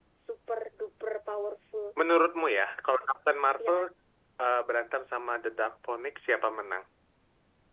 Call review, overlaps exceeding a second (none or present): none